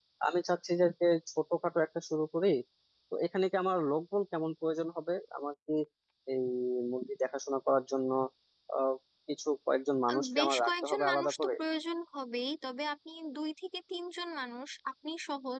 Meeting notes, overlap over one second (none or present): present